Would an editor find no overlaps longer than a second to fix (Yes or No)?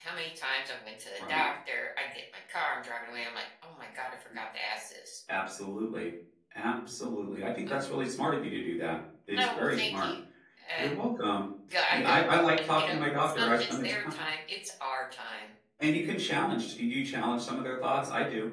No